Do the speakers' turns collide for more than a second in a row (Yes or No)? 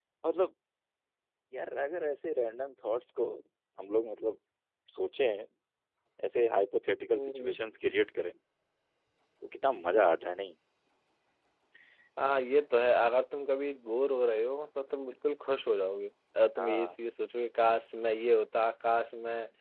No